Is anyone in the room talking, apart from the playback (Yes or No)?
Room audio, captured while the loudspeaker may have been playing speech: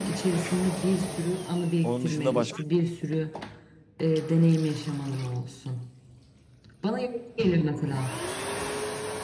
Yes